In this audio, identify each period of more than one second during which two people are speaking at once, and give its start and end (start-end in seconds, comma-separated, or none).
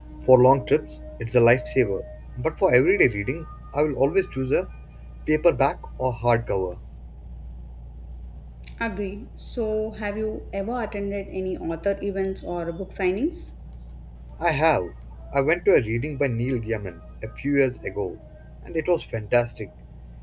none